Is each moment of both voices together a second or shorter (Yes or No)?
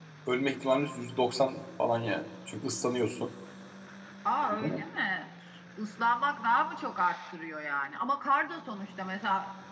Yes